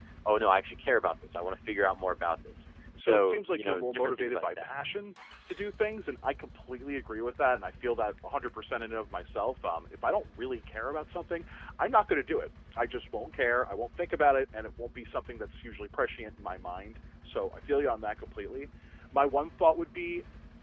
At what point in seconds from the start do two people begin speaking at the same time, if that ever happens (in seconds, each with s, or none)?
3.0 s